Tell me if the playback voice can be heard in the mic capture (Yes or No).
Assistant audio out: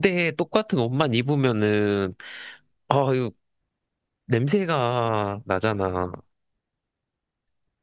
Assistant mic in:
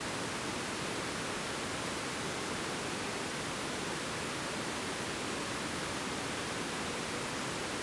No